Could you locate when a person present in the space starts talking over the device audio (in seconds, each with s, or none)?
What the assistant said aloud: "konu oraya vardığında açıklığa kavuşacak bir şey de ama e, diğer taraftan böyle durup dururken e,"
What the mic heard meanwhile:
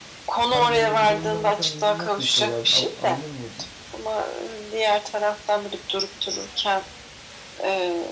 0.3 s